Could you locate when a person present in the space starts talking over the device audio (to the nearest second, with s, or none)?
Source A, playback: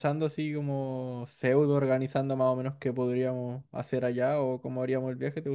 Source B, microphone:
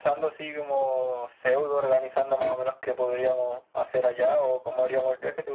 none